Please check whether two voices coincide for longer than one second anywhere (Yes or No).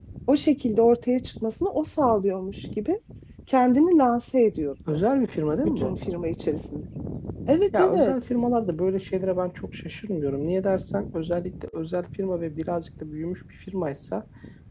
No